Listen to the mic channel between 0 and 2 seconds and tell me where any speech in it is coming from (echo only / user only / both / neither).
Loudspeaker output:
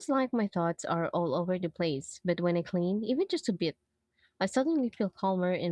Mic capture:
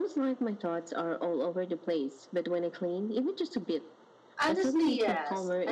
echo only